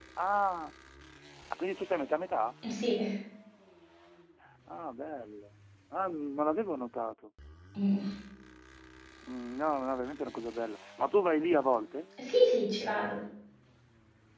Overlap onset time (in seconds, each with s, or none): none